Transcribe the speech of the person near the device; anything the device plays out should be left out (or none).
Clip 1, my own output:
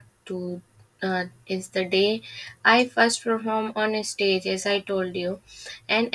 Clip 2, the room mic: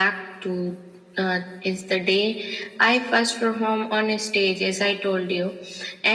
none